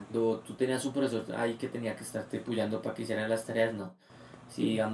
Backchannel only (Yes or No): Yes